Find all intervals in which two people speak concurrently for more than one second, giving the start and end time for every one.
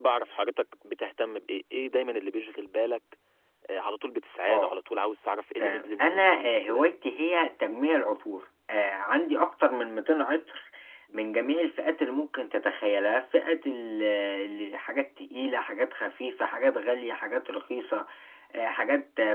5.6-6.8

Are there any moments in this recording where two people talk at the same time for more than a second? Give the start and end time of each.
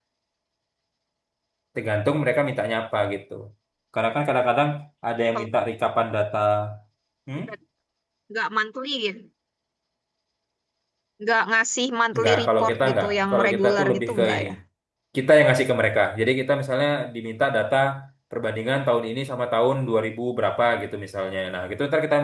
12.1-14.5

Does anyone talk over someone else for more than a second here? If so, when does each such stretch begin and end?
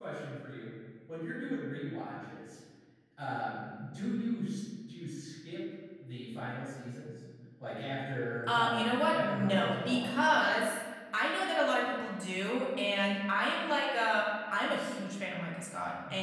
8.5-10.2

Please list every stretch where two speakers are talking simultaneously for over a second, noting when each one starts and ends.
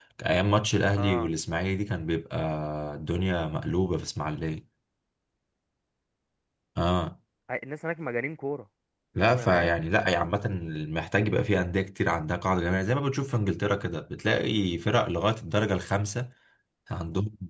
none

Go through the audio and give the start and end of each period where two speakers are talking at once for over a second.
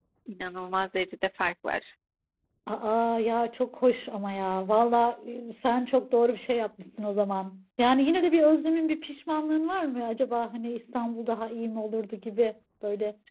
none

